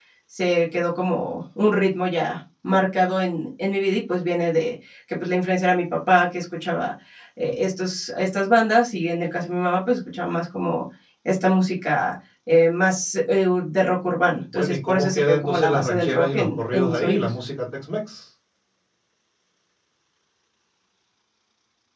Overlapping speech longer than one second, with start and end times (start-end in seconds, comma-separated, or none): 14.5-17.3